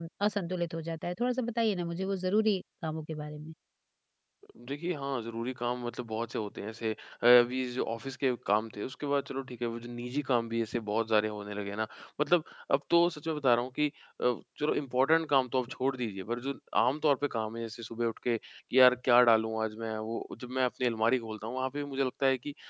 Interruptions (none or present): none